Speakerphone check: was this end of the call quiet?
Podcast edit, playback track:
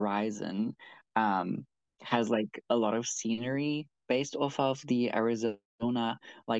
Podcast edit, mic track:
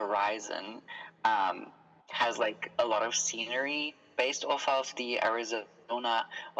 Yes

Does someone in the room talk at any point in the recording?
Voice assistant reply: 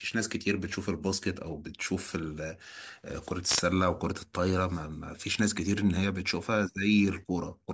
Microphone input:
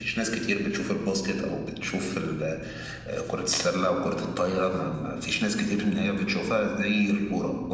No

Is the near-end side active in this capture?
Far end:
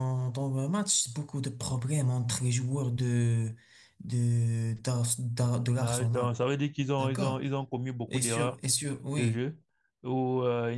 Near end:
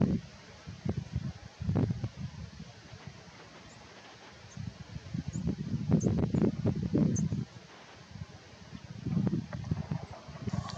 No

